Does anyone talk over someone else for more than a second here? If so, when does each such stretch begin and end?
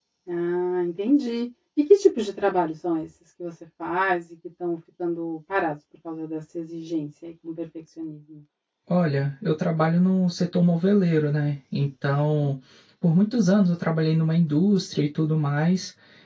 none

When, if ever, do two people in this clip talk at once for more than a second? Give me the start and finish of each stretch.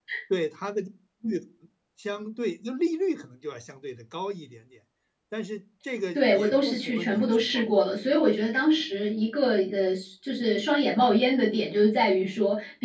6.2-7.7

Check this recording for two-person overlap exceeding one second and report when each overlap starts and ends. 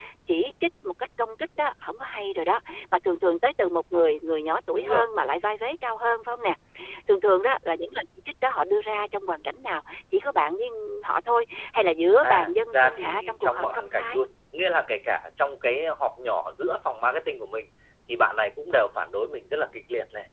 12.2-14.2

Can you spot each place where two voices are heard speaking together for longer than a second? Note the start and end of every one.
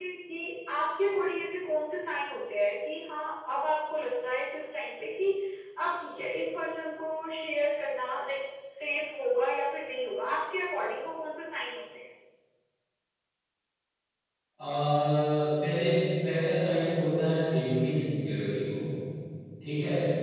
none

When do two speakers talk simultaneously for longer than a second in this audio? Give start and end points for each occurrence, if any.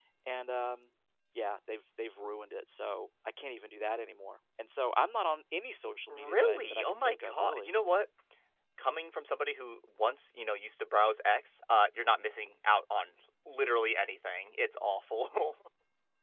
6.1-7.7

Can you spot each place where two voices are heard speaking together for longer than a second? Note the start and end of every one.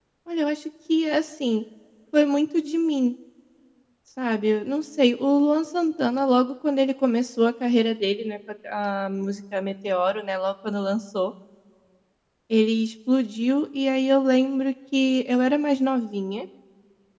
none

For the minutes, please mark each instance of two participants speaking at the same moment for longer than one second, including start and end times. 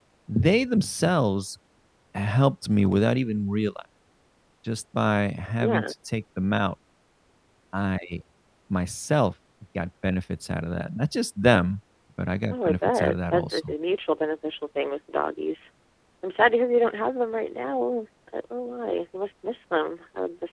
12.5-13.7

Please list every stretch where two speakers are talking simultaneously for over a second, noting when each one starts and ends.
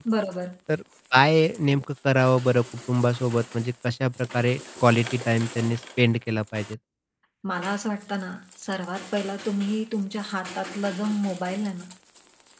none

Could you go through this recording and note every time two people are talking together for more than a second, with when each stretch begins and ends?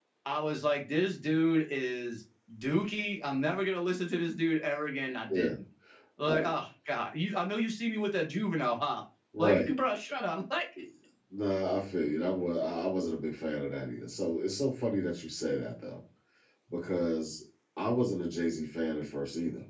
none

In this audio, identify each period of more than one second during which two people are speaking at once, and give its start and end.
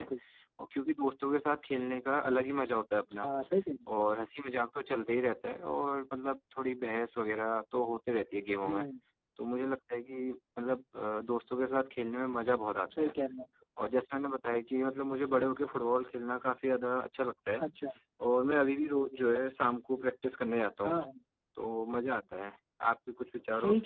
none

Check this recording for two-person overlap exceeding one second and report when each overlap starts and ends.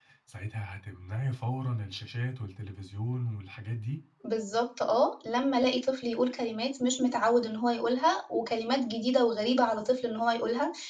none

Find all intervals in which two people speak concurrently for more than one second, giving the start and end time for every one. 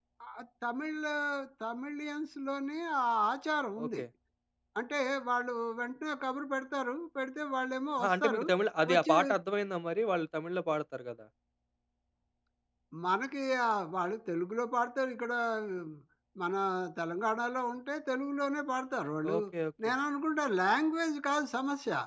none

